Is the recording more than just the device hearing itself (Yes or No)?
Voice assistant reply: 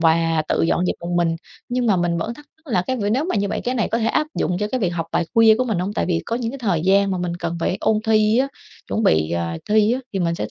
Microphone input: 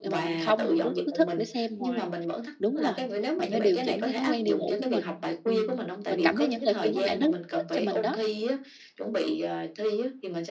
Yes